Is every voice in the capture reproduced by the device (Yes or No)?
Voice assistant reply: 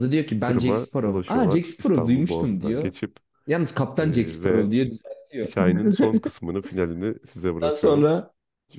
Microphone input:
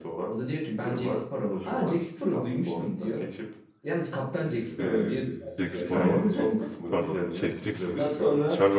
No